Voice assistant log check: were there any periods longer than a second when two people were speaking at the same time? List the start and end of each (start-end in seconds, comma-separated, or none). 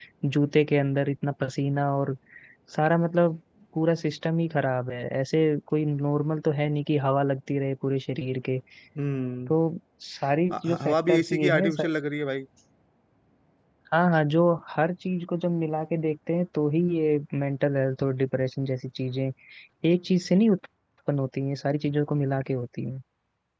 10.6-11.9